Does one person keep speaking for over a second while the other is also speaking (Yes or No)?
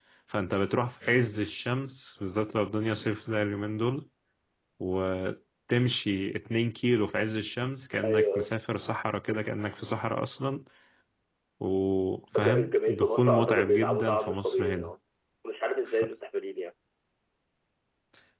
Yes